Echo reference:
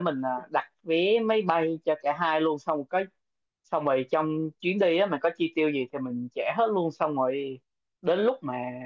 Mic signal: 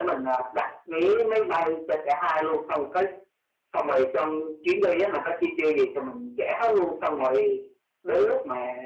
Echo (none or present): present